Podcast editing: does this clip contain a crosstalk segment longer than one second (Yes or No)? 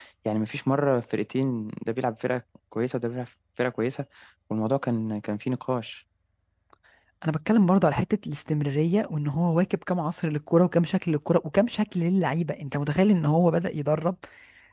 No